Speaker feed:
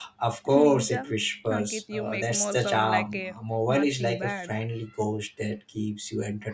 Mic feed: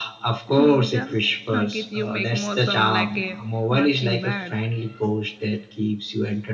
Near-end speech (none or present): none